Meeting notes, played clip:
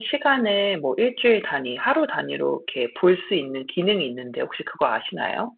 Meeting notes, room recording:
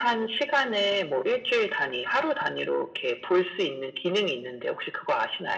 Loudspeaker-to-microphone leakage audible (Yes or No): Yes